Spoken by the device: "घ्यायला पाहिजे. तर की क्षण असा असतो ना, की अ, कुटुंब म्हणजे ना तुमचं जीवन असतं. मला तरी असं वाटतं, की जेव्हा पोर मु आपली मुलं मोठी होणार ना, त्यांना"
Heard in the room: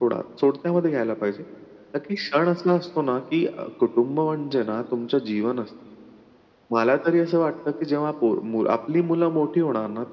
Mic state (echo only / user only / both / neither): echo only